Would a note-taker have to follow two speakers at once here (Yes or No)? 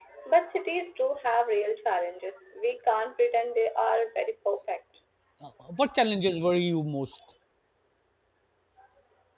No